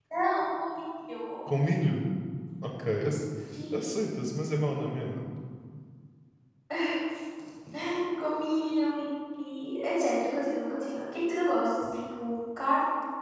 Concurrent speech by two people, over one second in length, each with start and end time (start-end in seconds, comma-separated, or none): none